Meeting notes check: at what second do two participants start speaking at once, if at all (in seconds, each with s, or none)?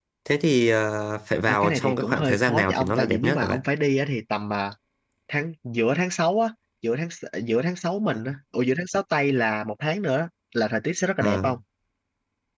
1.5 s